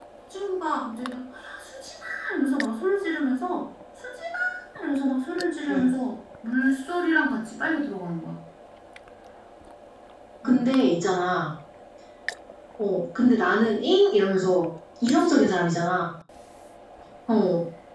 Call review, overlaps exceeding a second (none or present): none